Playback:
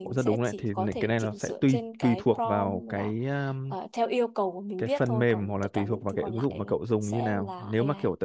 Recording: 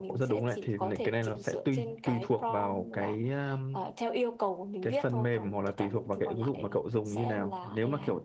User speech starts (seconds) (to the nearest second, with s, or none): none